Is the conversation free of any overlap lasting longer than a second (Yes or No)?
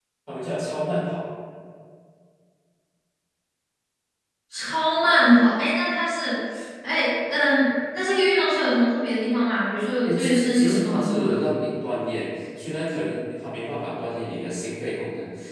No